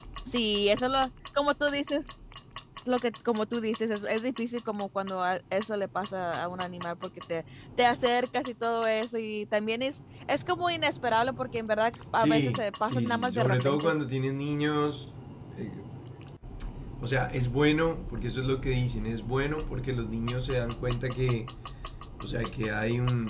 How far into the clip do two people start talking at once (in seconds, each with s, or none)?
12.1 s